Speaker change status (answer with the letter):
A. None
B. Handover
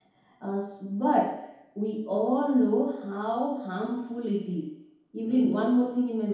A